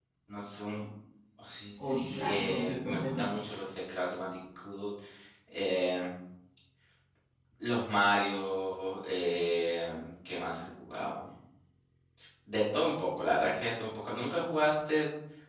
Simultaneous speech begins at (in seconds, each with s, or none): 1.8 s